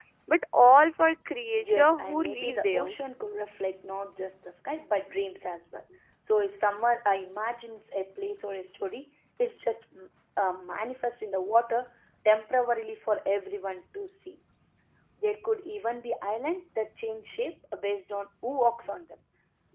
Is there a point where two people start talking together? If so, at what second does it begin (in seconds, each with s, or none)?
1.6 s